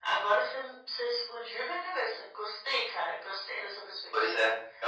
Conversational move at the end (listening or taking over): taking over